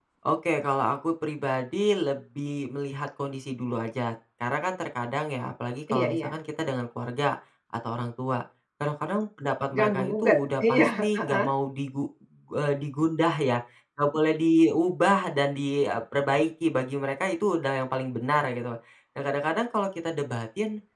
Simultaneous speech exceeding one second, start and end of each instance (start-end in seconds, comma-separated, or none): 9.7-11.5